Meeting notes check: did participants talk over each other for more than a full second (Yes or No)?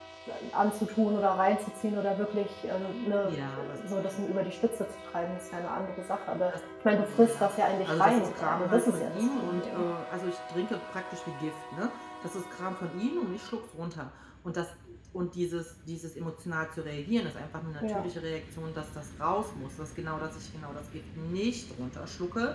Yes